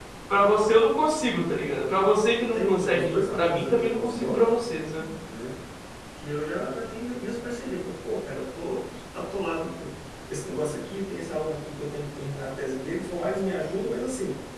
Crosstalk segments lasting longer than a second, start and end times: 2.4-4.4

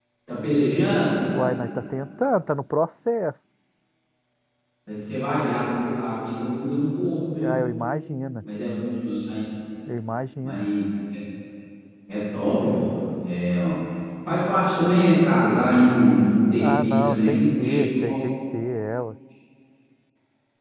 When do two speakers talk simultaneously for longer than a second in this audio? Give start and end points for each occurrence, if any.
16.6-18.2

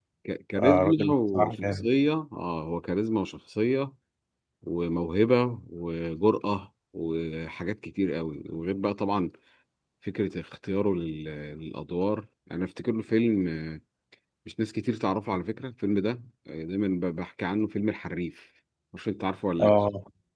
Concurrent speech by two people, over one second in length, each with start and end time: 0.6-1.9

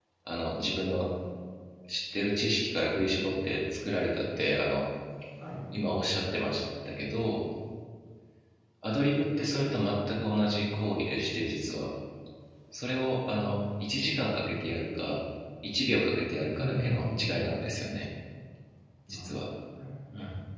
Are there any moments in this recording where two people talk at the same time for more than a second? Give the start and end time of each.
16.5-17.9

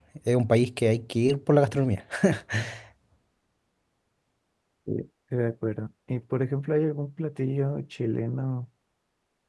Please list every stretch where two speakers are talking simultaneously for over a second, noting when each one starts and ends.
none

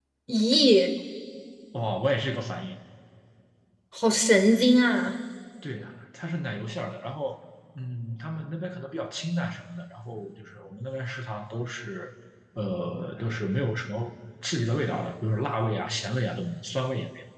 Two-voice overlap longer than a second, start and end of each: none

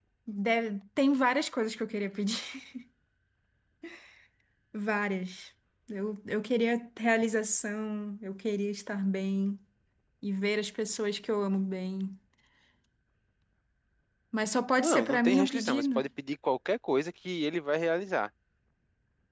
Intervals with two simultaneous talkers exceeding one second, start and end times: 14.8-16.0

